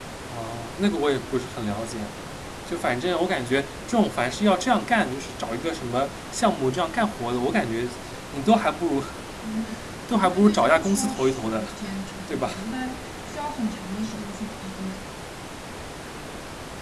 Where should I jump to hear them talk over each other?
10.2 s

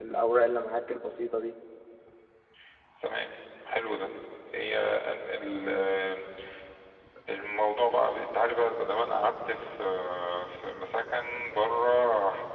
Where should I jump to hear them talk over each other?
none

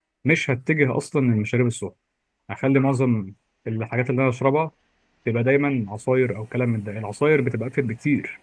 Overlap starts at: none

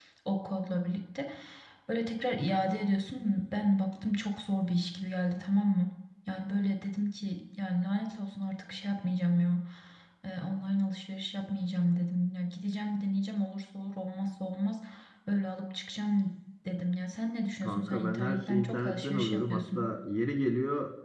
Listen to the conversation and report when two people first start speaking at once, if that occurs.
17.6 s

